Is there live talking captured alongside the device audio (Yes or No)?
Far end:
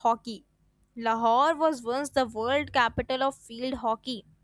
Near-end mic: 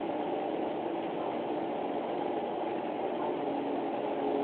No